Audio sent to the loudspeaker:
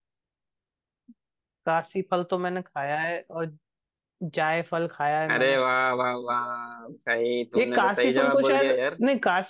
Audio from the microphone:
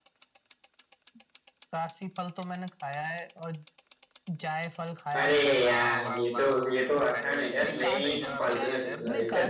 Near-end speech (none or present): present